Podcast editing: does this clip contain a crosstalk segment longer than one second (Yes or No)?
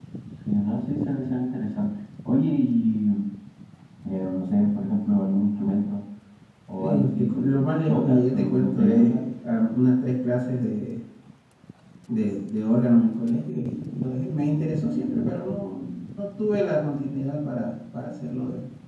Yes